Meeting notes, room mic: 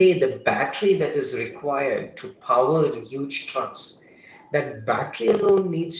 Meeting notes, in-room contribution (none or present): present